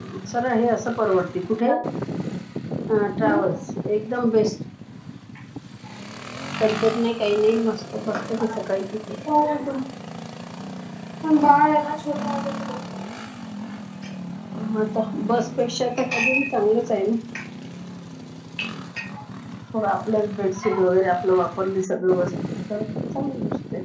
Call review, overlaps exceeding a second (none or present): none